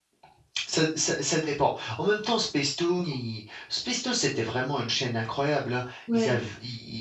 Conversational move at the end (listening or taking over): listening